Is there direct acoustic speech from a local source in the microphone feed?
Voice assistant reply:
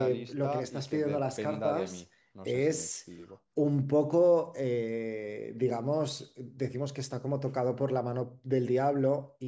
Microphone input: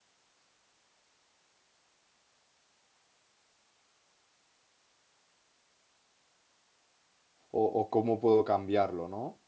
Yes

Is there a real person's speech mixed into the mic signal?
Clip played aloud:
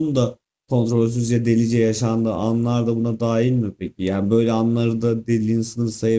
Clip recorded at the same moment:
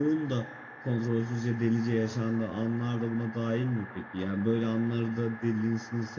No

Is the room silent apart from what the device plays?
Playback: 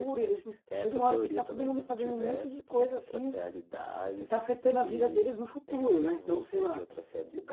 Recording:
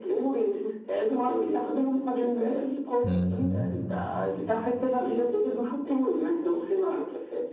No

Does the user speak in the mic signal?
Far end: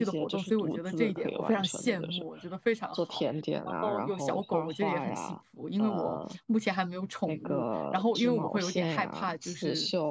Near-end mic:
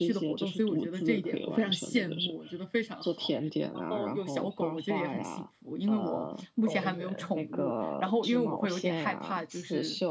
Yes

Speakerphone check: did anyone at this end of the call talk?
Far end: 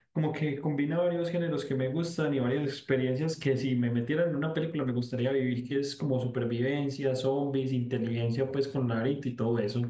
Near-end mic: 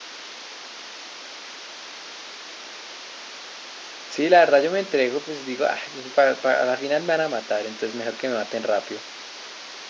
Yes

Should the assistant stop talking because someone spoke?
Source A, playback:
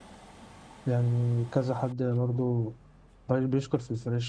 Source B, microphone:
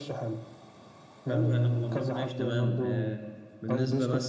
Yes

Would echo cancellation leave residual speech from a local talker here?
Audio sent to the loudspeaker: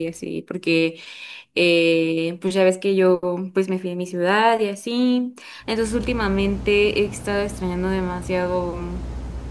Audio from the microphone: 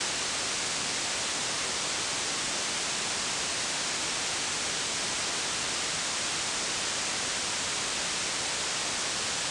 No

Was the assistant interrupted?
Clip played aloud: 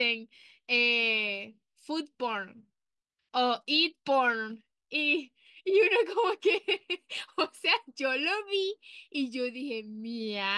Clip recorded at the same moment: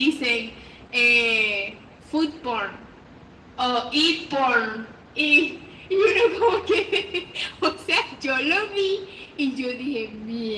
No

